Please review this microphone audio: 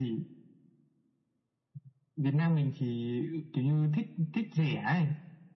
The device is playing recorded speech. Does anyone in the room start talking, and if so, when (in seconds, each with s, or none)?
none